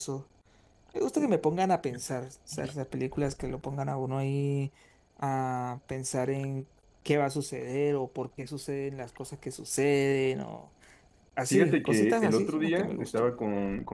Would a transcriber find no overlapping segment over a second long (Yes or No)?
No